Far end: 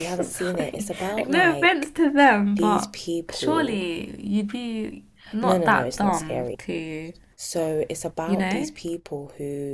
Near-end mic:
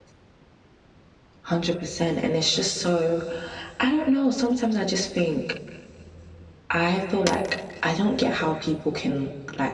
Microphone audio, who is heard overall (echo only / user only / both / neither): user only